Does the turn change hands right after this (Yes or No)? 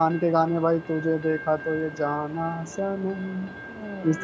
Yes